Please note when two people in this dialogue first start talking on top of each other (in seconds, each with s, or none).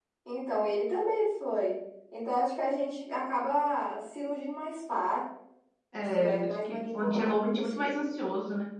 6.3 s